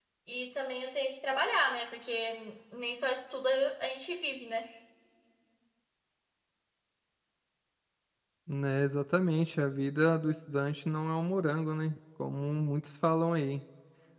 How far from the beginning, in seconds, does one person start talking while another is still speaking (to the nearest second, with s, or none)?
none